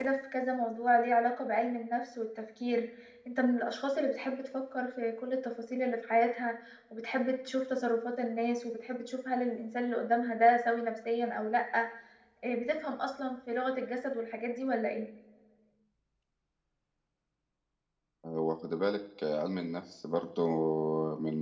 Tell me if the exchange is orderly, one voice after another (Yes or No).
Yes